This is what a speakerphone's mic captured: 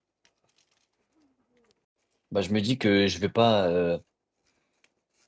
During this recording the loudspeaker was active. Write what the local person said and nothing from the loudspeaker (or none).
bah, je me dis que je vais pas, euh,